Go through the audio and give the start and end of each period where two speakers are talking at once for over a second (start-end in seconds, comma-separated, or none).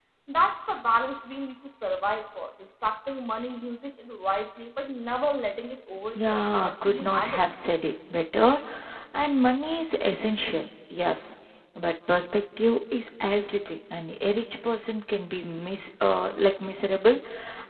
6.1-7.5